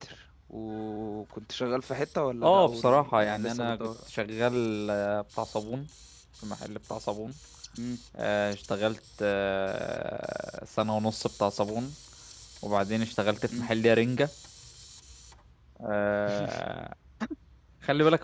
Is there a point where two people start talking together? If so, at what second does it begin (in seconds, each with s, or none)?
2.4 s